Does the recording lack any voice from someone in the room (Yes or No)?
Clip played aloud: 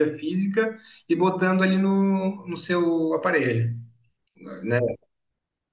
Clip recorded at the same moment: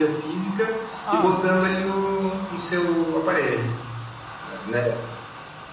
No